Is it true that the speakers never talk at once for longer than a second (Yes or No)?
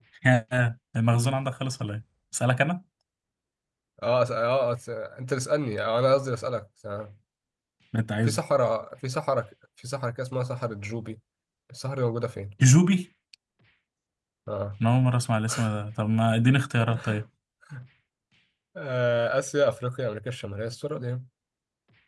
Yes